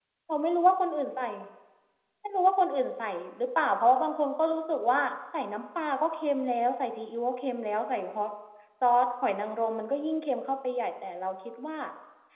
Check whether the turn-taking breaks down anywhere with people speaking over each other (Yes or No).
No